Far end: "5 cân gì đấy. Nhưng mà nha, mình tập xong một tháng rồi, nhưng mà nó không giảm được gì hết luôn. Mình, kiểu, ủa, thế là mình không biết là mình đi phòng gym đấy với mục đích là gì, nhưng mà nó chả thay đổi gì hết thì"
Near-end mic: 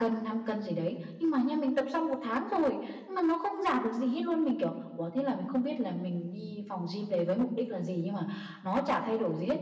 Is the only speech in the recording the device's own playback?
Yes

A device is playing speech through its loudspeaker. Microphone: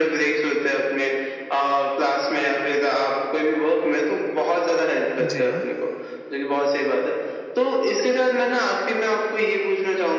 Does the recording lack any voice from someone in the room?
No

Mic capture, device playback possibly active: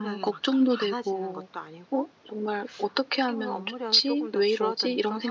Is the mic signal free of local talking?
Yes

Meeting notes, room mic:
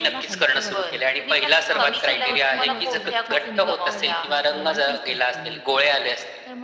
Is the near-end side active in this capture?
Yes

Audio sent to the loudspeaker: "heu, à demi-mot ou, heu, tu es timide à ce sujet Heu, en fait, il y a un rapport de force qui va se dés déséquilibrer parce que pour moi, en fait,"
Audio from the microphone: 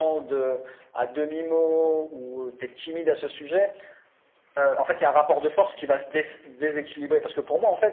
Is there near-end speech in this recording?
No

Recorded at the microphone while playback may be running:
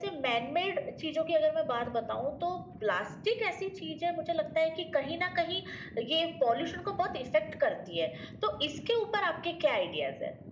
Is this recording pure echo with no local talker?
Yes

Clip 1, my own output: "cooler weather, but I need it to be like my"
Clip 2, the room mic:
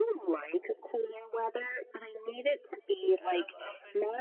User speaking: Yes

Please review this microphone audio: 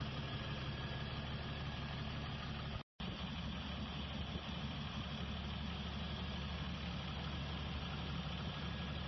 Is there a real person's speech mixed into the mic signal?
No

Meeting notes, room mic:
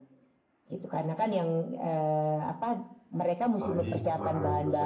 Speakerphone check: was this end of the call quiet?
No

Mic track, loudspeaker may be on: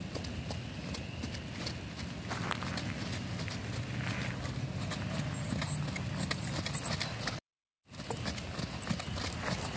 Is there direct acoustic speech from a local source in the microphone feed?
No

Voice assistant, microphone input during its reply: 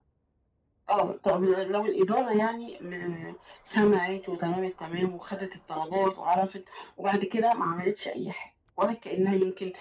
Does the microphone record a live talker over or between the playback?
No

